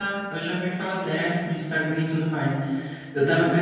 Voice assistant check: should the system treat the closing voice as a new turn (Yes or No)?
No